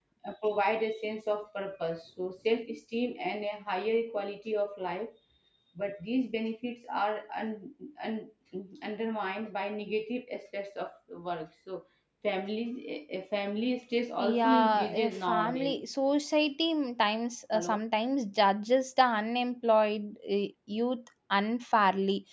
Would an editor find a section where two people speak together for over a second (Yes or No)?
Yes